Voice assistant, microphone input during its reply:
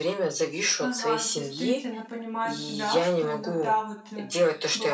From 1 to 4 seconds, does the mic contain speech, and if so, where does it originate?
both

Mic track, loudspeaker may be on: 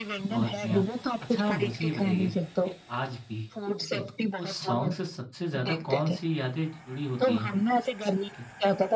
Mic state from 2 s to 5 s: both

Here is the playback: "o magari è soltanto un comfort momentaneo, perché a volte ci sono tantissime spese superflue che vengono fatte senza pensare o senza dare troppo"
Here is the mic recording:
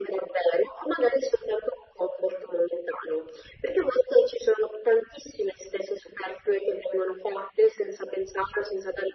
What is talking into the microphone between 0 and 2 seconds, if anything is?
echo only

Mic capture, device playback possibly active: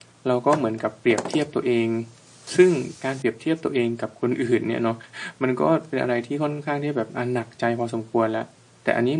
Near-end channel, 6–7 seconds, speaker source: user only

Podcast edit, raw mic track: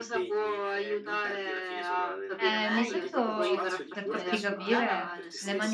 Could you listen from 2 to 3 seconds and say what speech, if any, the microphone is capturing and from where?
both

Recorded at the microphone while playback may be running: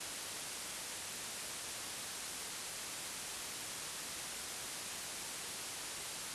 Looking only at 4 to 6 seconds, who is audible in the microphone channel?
neither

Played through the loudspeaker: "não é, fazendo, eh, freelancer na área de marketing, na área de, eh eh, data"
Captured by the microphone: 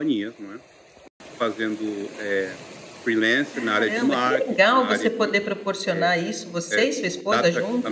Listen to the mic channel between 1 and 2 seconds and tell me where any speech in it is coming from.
echo only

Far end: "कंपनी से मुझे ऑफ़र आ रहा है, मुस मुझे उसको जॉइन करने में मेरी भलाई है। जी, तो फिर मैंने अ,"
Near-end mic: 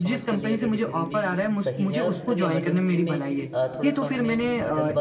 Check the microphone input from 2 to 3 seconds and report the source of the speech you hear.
both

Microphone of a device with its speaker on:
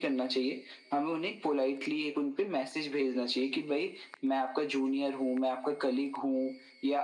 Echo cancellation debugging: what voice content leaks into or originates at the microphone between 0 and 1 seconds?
echo only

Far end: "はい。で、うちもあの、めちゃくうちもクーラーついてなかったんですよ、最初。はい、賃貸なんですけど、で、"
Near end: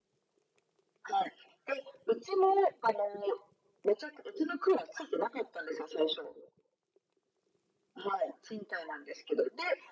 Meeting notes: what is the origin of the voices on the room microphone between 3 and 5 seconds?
echo only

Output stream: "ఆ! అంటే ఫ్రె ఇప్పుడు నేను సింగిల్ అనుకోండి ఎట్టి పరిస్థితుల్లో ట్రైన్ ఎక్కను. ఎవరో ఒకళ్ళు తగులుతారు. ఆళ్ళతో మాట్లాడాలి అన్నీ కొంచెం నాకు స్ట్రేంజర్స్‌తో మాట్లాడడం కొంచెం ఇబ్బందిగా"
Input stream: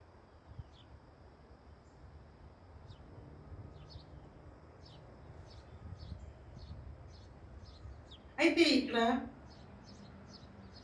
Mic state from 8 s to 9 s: user only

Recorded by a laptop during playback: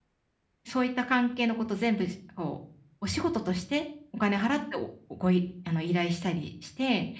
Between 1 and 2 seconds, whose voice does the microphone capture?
user only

